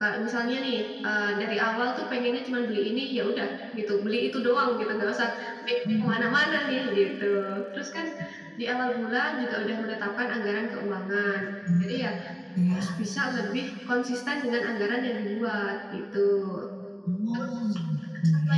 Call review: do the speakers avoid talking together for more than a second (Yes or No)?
Yes